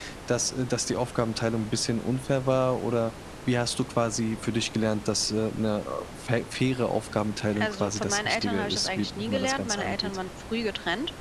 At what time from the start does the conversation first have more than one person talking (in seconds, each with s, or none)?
7.5 s